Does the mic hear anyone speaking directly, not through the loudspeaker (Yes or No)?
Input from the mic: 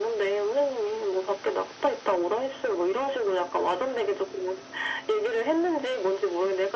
No